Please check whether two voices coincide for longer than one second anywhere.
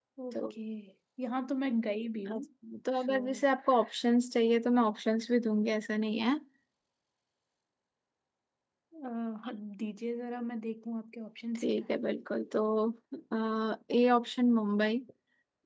No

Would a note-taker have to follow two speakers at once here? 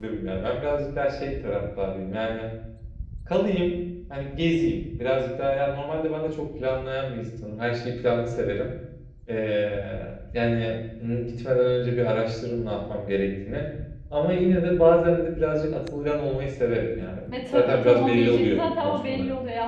Yes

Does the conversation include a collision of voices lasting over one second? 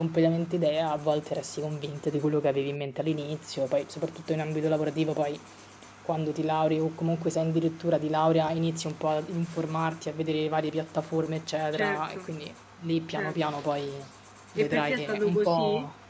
Yes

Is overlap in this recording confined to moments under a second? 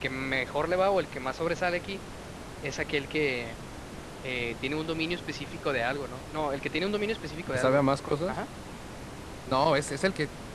Yes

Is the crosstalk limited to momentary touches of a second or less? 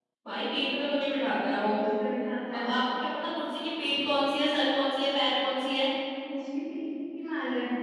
Yes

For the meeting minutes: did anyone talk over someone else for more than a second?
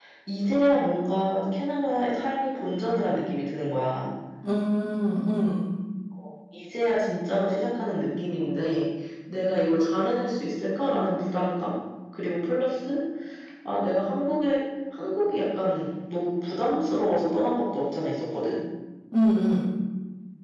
No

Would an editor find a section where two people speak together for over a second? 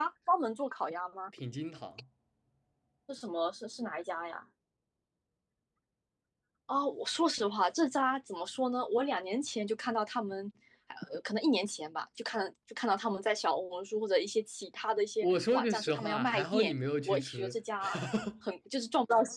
Yes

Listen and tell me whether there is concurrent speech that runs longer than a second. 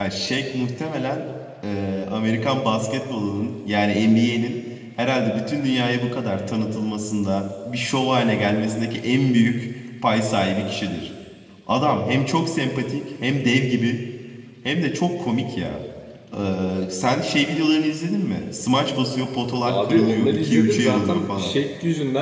Yes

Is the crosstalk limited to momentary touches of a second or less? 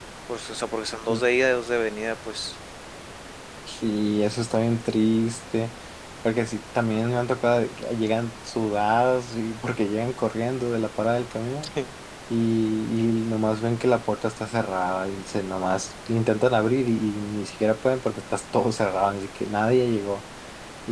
Yes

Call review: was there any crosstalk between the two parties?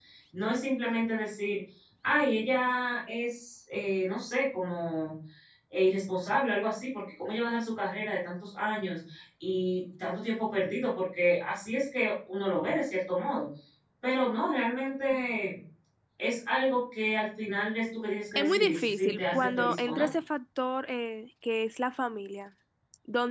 Yes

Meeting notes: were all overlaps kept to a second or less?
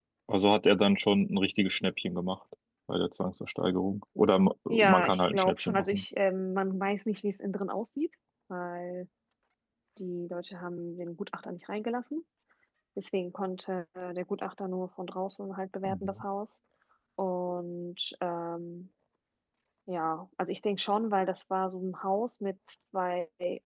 No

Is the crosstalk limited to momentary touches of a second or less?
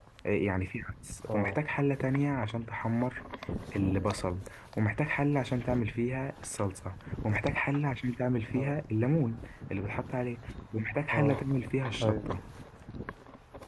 Yes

